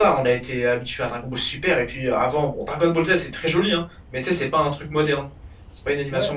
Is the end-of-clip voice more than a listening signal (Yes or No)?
Yes